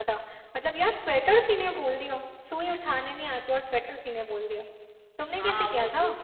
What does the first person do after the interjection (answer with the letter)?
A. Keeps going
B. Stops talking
B